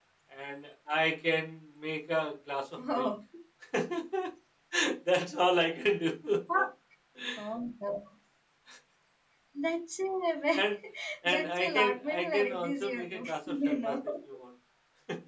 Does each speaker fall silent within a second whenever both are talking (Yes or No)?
No